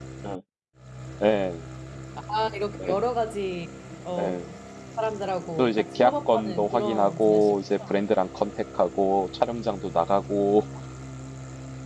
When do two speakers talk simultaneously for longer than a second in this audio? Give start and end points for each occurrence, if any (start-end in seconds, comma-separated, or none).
5.6-7.6